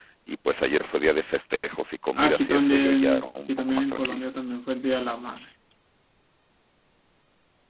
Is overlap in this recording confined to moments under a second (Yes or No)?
No